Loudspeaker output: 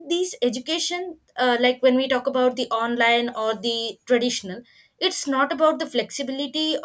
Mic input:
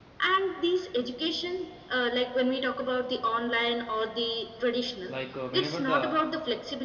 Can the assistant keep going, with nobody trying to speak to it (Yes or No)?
No